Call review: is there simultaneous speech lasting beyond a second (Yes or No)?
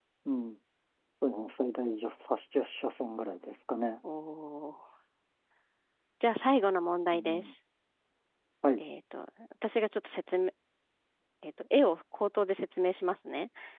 No